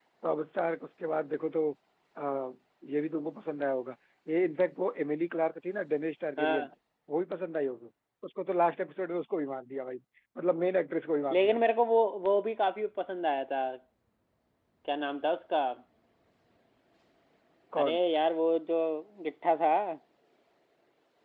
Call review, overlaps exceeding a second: none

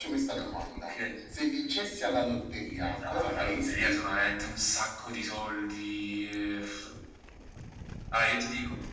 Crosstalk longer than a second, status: present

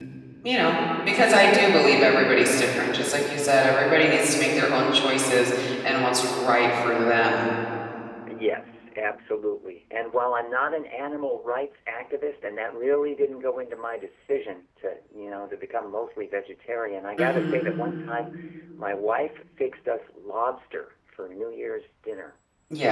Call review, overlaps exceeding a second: none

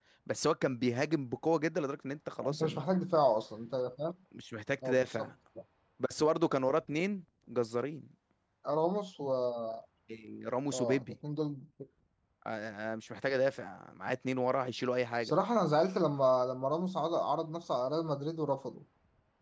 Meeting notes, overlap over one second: none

